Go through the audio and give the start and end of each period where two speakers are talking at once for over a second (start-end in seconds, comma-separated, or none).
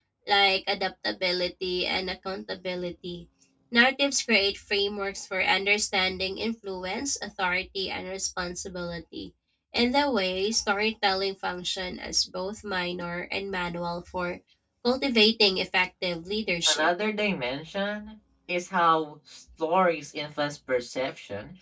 none